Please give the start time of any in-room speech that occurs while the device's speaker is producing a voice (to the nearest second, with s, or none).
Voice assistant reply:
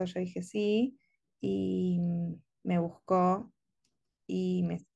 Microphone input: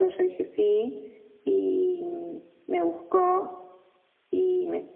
none